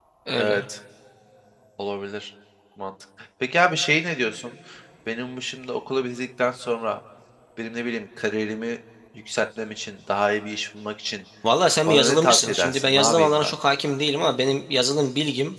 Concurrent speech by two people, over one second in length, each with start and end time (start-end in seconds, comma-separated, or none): 11.9-13.5